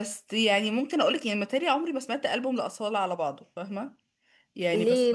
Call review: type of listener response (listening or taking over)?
taking over